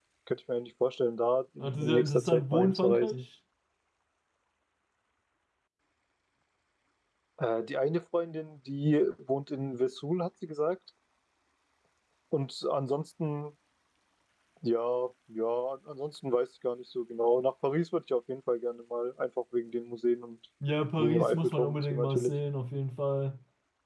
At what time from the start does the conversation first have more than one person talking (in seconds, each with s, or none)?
1.6 s